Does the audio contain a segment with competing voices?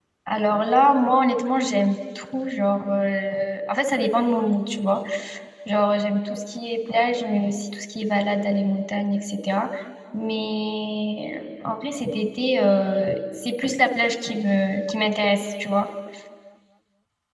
No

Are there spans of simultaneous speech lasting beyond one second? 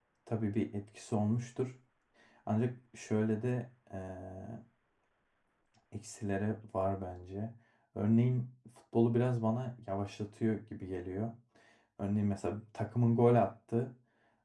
No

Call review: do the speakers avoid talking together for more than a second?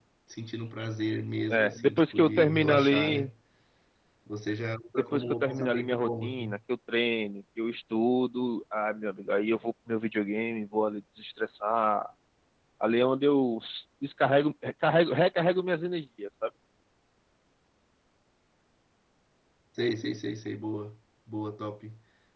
No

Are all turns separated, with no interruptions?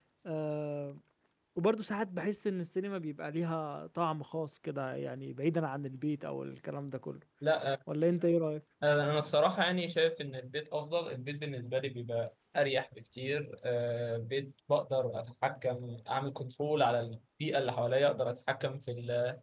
Yes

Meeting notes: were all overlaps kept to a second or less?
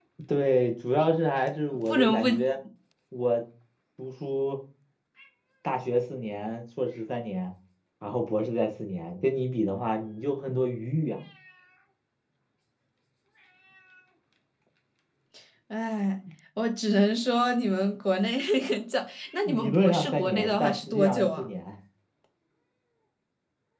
No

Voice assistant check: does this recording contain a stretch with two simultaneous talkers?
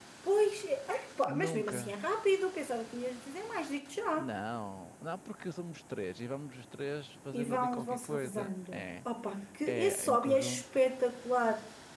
Yes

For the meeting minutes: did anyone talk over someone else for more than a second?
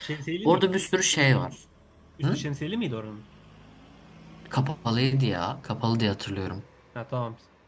No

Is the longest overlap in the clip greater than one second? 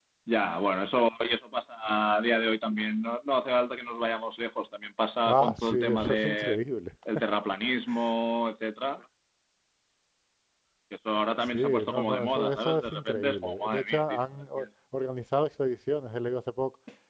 Yes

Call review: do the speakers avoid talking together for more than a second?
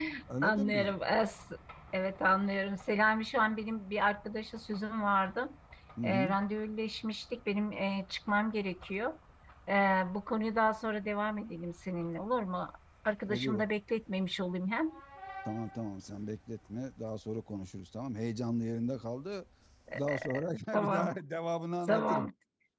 Yes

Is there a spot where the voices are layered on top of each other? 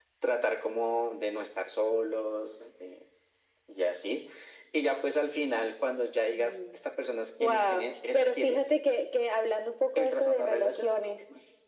Yes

